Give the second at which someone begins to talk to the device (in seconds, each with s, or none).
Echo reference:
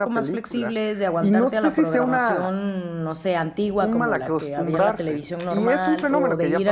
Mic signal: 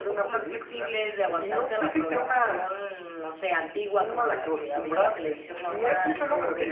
none